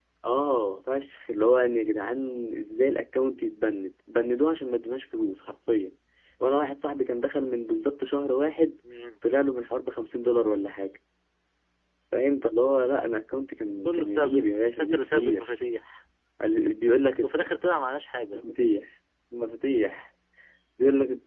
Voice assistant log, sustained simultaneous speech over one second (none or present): present